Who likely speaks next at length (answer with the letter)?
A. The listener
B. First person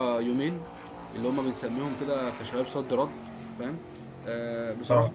B